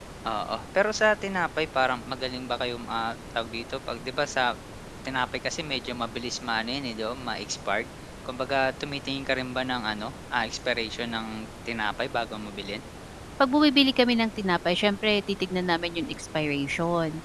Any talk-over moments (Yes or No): No